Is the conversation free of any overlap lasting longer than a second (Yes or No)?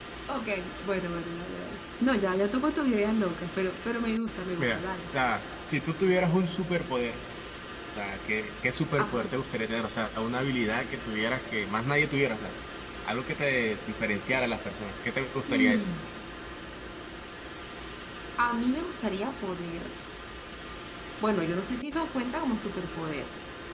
Yes